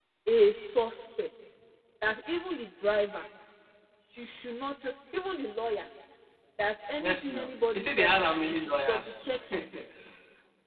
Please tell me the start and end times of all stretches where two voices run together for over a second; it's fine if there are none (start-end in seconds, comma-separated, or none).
7.0-9.8